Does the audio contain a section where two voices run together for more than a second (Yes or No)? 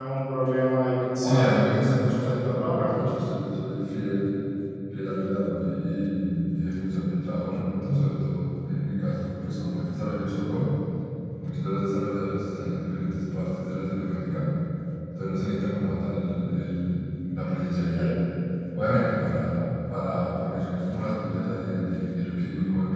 Yes